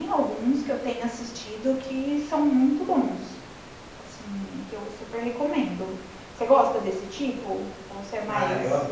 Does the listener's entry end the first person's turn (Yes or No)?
Yes